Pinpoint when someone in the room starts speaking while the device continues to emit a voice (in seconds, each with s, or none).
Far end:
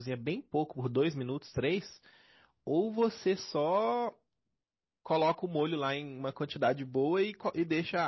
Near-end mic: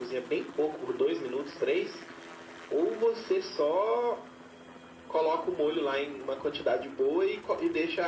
none